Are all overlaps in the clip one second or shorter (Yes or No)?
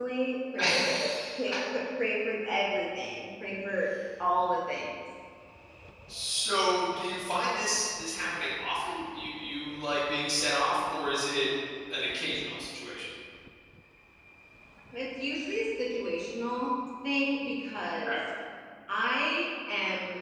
Yes